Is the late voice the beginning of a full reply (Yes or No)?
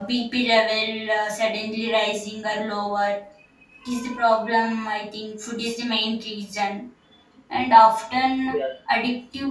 No